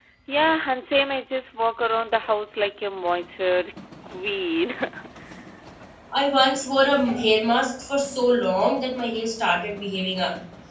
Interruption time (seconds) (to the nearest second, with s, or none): none